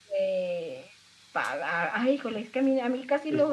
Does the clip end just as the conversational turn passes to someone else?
No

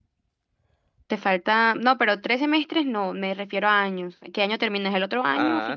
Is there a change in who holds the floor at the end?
Yes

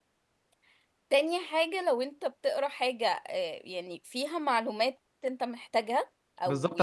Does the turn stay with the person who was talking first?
No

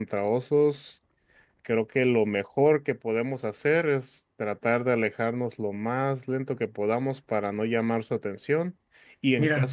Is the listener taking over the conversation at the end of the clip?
No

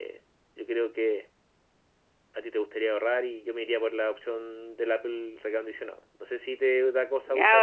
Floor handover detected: Yes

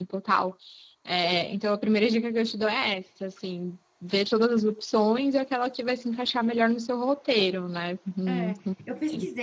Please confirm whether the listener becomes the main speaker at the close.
Yes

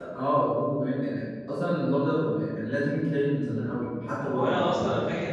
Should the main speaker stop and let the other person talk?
Yes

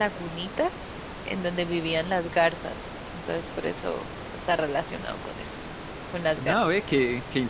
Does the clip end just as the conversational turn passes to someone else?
Yes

